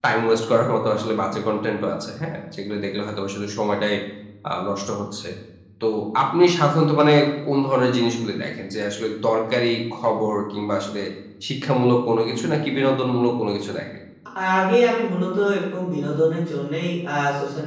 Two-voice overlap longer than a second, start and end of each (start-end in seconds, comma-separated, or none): none